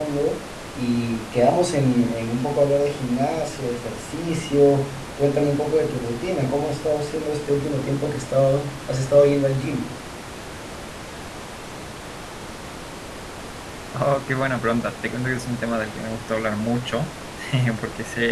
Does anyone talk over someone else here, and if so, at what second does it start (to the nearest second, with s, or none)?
none